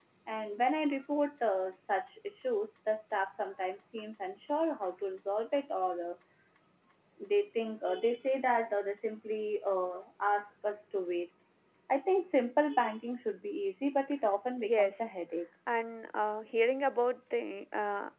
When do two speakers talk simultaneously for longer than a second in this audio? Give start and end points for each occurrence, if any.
none

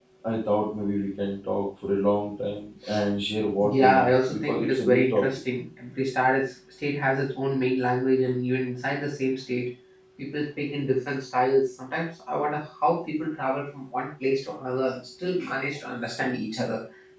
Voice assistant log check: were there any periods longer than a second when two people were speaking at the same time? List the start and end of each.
3.6-5.2

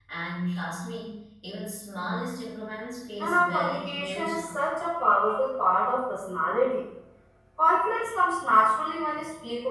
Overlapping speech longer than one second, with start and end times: 3.2-4.5

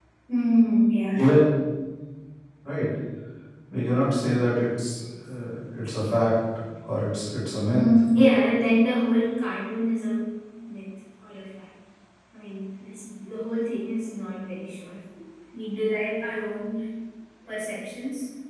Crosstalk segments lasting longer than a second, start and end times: none

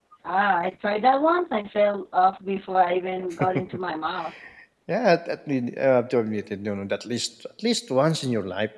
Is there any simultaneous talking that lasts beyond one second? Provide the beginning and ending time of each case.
none

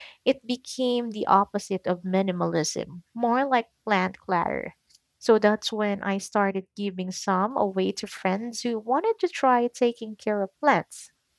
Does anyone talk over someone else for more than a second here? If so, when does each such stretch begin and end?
none

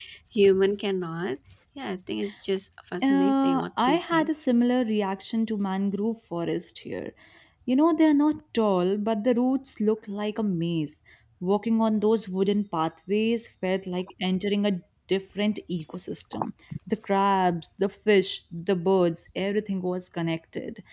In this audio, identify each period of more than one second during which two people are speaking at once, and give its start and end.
3.0-4.3

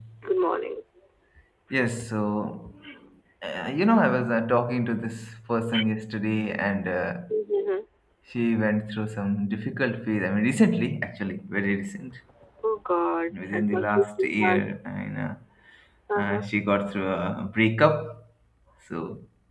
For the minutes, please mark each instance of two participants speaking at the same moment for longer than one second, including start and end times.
13.3-14.6

